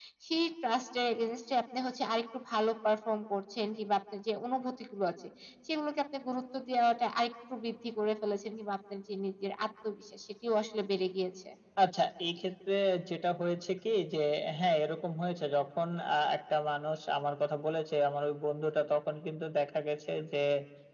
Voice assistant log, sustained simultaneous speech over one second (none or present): none